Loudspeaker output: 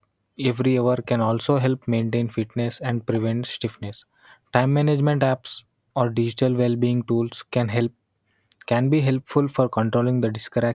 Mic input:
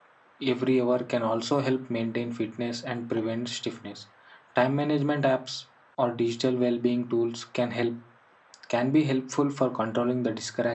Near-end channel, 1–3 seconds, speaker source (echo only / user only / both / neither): echo only